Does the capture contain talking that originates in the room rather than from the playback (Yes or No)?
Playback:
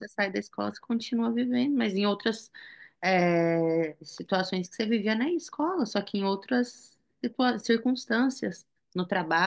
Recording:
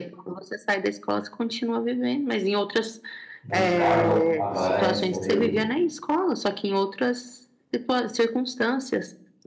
Yes